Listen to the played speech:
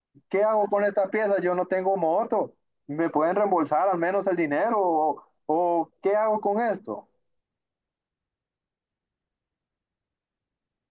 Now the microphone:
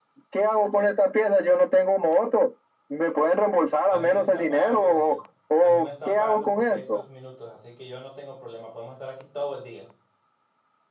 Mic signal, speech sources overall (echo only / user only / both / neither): both